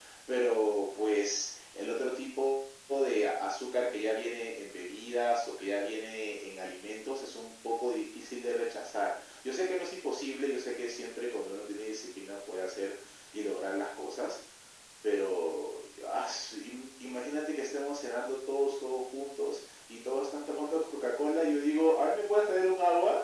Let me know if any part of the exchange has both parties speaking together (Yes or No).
No